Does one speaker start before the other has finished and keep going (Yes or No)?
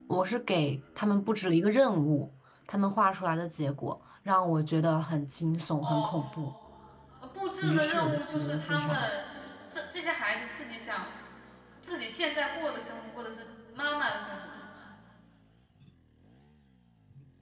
Yes